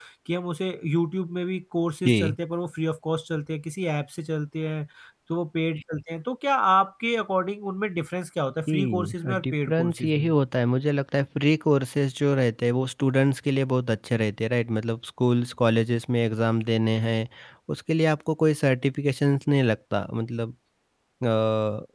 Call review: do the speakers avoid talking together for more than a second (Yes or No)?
No